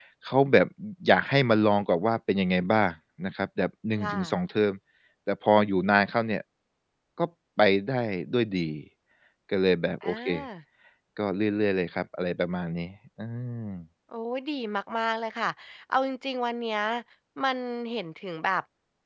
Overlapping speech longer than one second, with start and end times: none

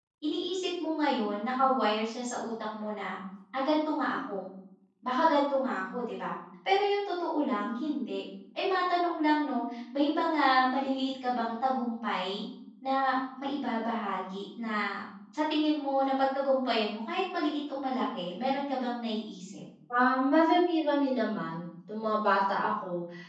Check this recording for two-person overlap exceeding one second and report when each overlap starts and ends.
none

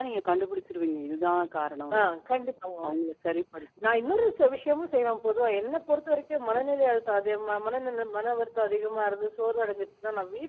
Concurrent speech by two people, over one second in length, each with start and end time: none

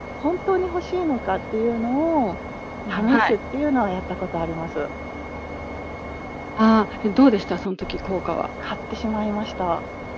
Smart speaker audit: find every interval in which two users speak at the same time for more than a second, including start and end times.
none

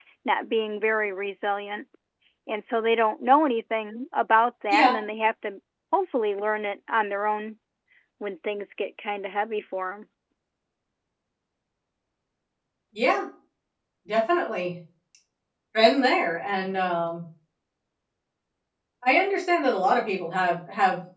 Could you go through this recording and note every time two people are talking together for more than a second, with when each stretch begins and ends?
none

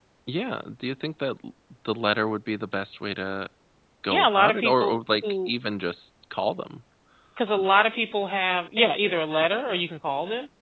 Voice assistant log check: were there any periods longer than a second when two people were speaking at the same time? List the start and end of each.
4.1-5.5

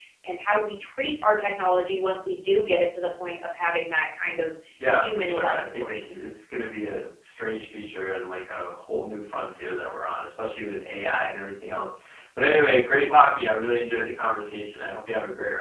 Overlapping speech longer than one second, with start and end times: 4.9-6.2

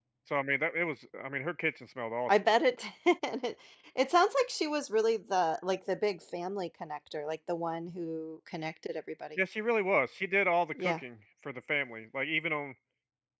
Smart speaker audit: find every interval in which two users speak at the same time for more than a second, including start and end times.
none

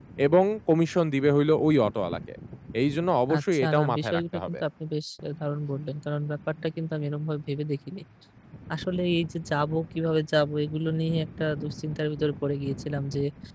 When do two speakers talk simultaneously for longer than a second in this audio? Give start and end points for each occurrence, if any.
3.3-4.6

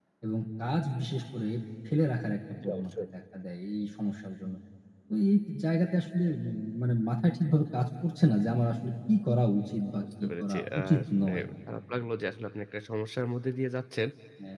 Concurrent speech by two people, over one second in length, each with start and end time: 10.2-11.4

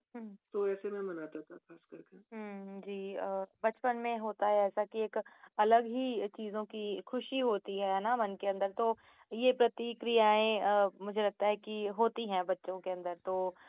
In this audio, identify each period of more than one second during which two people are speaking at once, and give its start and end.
none

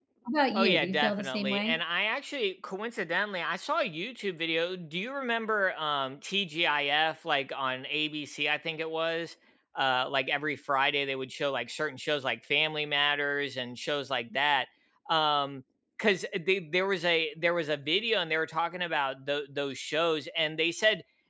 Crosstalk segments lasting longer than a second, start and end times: 0.5-1.8

